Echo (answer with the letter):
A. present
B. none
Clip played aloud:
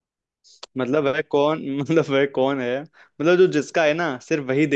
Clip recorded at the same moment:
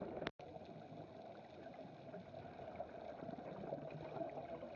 B